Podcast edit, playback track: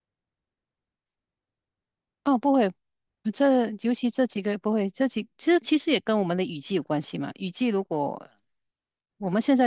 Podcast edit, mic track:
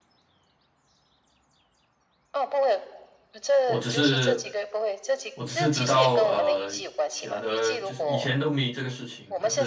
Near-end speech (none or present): present